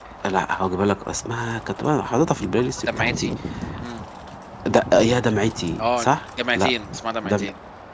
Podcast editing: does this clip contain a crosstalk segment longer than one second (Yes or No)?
No